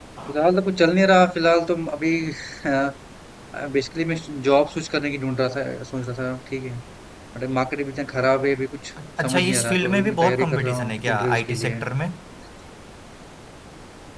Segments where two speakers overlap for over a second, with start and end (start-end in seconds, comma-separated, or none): 9.2-11.8